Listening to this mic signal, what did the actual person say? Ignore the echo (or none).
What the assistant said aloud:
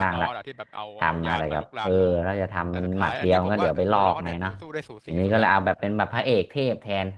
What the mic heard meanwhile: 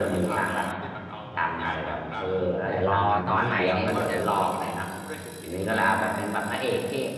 แต่รอตอนใหม่นี้มันจะ